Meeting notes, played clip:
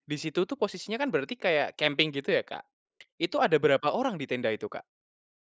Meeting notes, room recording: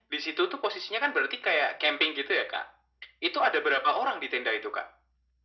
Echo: present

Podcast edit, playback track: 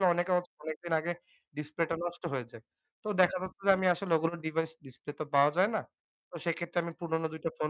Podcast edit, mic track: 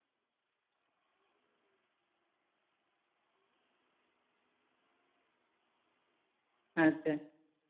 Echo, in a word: none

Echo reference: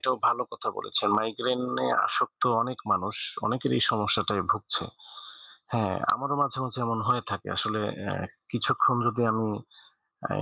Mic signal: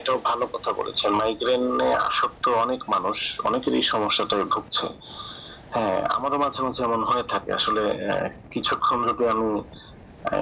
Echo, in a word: present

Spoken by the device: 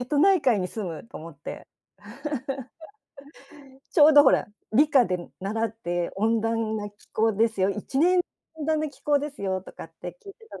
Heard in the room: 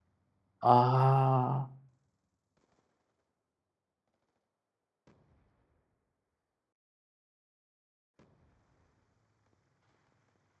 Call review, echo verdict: none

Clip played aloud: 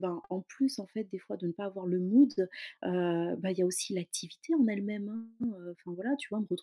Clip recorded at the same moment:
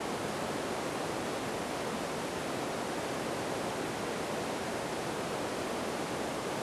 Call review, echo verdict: none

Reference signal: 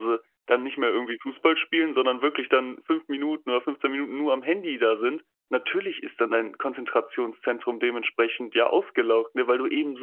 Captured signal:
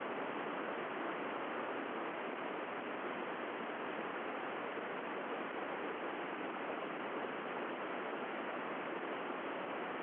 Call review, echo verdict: none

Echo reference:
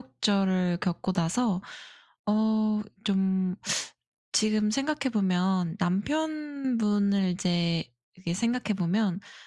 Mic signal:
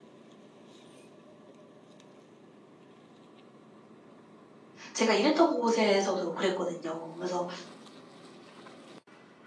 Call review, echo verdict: none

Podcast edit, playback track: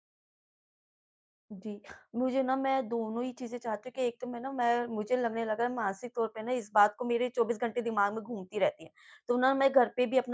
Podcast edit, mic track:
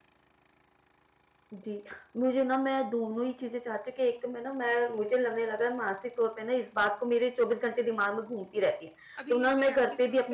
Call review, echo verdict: present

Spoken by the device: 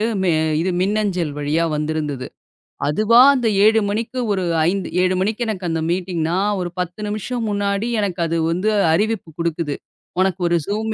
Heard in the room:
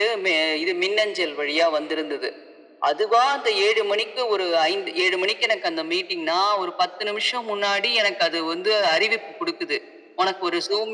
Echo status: present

